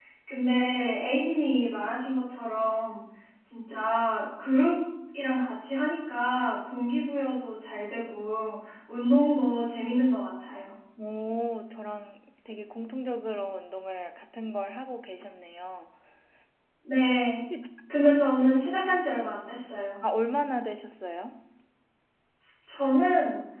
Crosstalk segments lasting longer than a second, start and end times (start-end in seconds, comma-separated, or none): none